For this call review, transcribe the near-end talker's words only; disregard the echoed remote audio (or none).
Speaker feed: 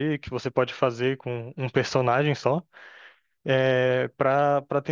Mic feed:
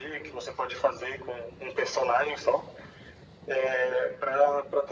none